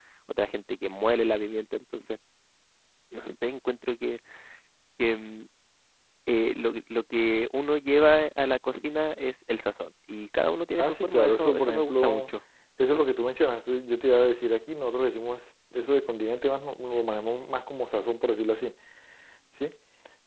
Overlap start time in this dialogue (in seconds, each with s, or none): 10.7 s